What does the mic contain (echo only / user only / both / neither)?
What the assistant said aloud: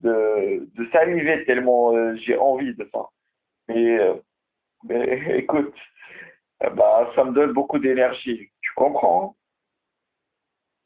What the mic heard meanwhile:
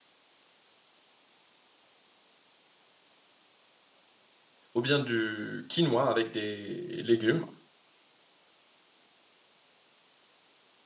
user only